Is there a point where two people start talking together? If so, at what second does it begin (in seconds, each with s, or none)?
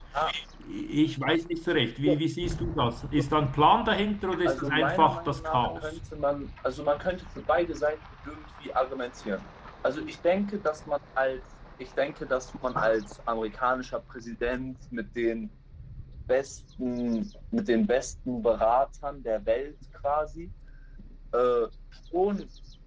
4.3 s